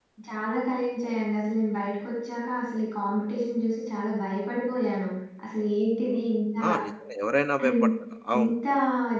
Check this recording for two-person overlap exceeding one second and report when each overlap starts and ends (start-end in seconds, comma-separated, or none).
none